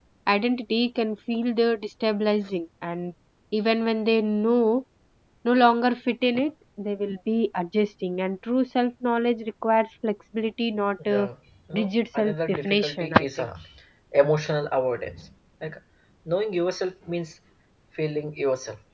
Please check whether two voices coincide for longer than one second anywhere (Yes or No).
Yes